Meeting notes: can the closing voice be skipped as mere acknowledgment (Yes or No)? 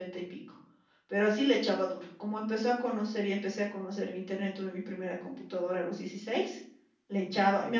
Yes